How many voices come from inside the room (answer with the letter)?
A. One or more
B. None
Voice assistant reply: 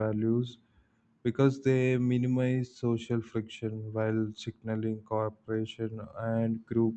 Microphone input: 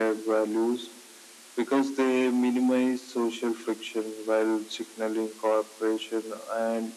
B